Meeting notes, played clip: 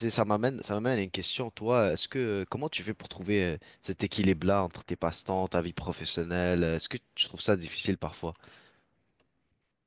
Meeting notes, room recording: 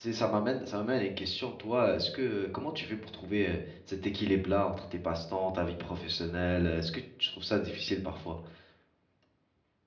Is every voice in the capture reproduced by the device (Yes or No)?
Yes